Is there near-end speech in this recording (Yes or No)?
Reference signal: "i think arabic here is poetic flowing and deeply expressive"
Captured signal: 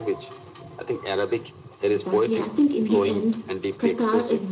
Yes